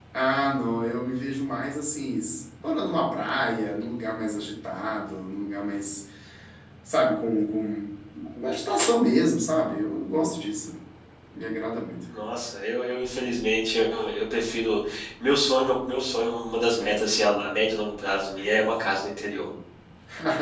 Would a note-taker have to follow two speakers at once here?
No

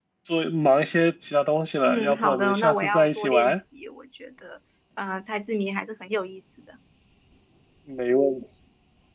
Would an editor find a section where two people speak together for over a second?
Yes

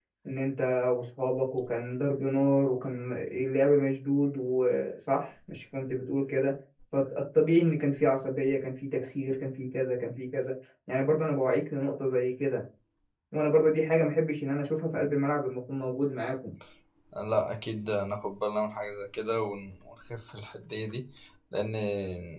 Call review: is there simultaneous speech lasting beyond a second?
No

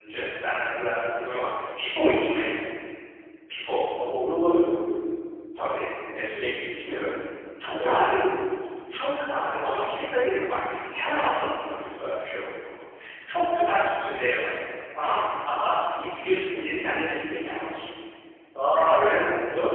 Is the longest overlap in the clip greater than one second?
No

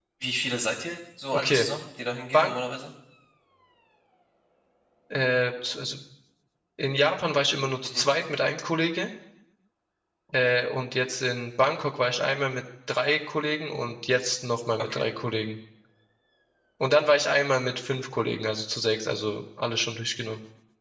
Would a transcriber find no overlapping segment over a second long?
Yes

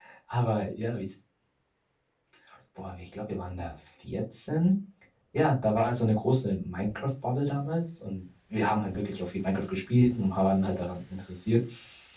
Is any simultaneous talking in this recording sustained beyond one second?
No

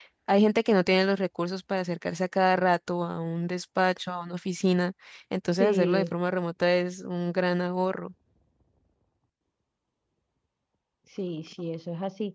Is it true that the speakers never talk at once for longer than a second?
Yes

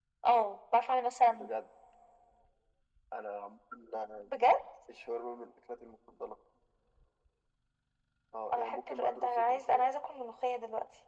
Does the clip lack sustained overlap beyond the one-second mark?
No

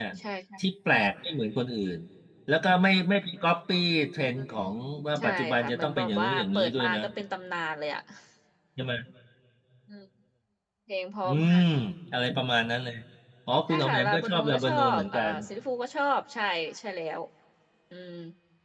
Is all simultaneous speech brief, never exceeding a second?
No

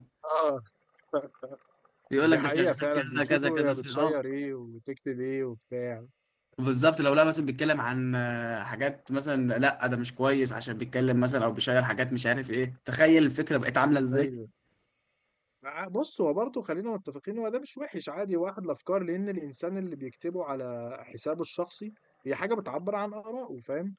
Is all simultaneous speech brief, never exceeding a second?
No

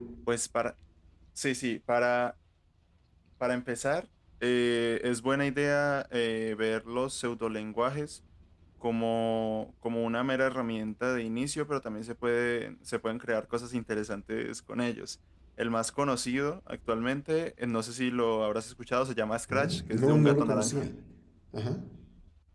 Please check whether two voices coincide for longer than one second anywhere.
Yes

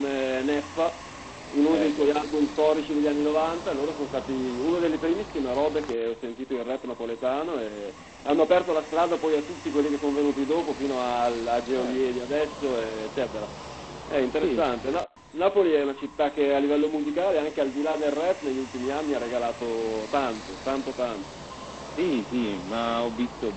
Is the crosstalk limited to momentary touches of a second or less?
Yes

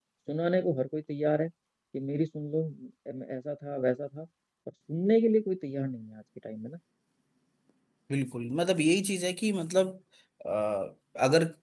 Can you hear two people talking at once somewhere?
No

